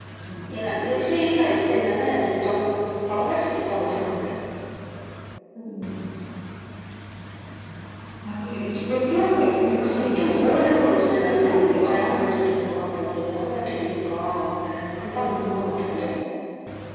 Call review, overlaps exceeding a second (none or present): present